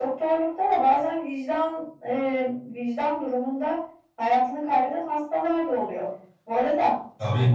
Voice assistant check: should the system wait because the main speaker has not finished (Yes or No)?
Yes